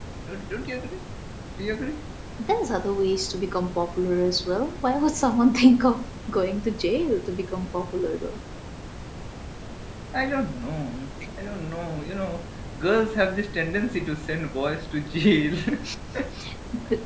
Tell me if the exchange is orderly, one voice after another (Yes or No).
Yes